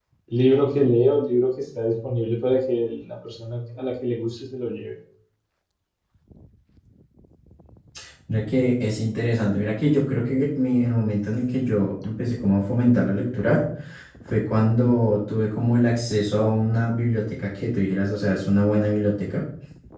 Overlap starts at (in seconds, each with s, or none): none